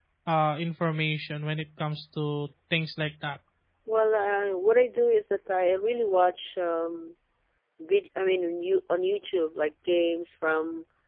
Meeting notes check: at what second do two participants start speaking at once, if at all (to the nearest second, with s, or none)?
none